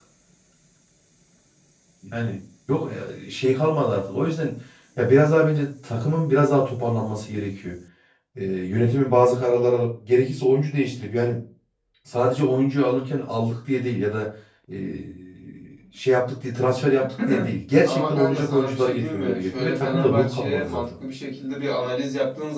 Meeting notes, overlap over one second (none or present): present